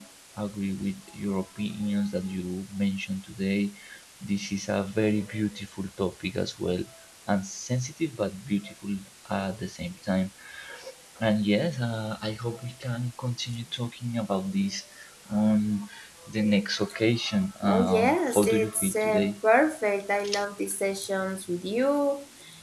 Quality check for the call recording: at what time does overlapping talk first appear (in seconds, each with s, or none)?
17.6 s